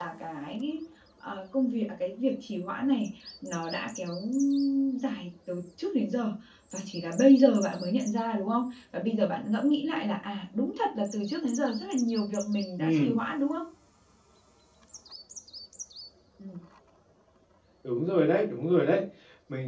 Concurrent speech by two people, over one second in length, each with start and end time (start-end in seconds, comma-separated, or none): none